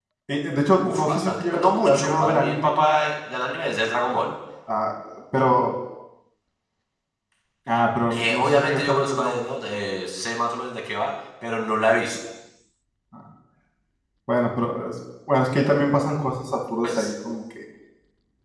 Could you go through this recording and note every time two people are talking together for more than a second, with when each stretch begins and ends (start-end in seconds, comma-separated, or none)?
0.9-2.7, 8.1-9.4